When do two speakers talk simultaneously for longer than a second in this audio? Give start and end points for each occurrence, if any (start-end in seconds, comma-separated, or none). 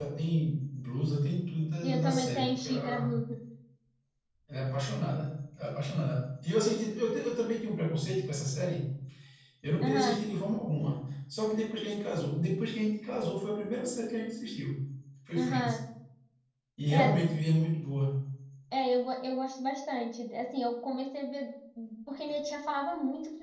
1.8-3.1